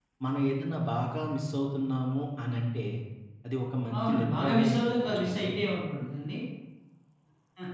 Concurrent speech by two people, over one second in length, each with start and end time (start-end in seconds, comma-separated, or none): 4.0-5.6